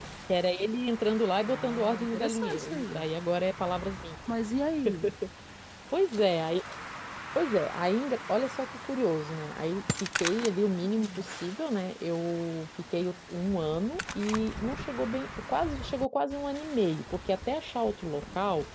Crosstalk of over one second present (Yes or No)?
Yes